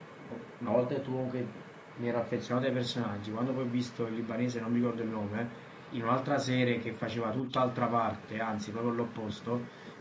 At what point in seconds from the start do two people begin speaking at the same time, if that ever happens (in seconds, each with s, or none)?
none